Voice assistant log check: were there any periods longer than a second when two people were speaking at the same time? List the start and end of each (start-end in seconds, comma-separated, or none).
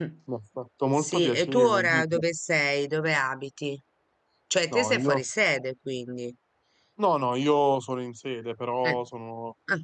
0.9-2.2